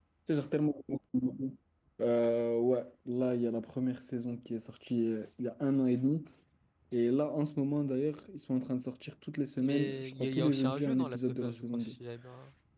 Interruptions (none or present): present